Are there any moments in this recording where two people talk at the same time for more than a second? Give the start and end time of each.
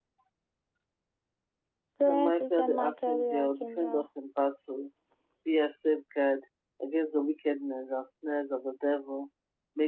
2.1-4.0

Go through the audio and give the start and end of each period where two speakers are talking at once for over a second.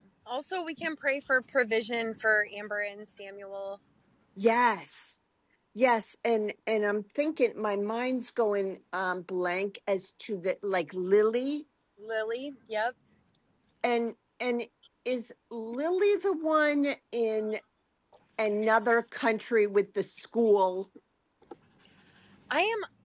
none

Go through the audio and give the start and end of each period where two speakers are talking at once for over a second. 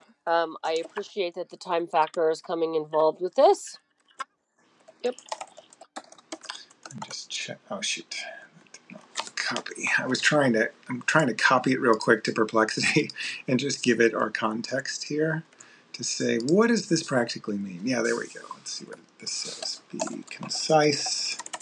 none

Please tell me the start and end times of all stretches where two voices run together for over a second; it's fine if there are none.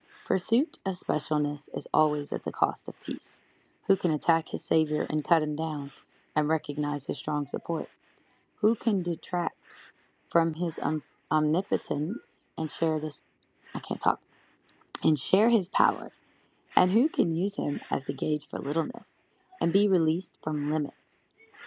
none

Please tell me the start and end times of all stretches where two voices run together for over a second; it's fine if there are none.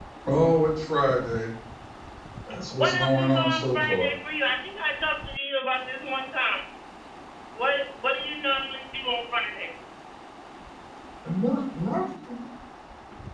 2.8-4.1

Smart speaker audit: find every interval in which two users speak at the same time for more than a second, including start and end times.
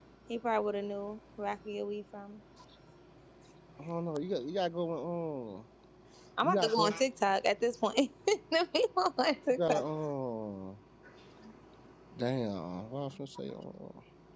none

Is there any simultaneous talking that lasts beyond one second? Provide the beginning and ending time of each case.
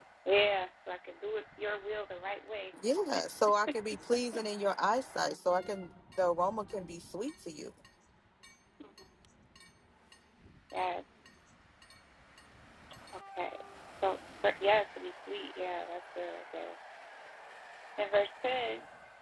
none

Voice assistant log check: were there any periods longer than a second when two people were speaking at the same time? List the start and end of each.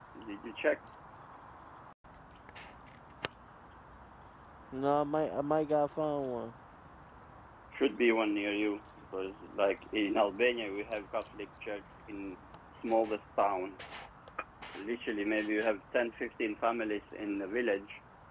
none

